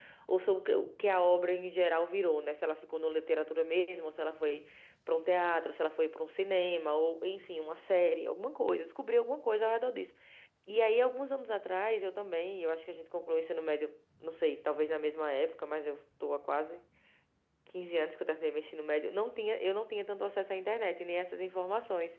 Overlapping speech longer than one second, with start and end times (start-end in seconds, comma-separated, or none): none